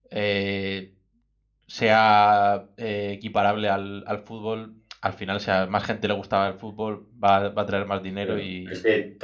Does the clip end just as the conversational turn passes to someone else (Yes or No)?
Yes